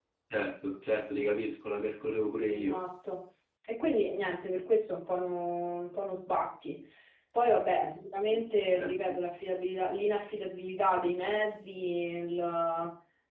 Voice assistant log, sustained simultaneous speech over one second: none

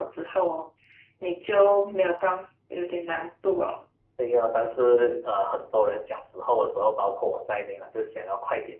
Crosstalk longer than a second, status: none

